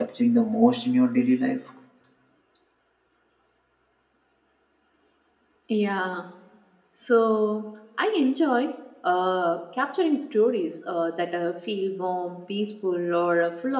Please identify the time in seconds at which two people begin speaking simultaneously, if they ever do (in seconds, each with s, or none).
none